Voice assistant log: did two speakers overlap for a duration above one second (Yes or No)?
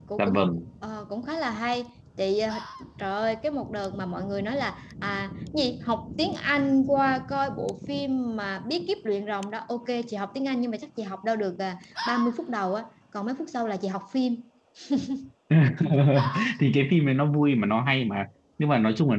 No